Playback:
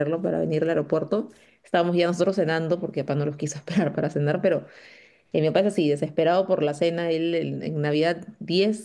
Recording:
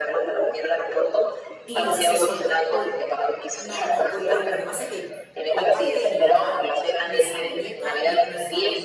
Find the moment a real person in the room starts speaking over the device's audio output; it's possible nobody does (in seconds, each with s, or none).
1.7 s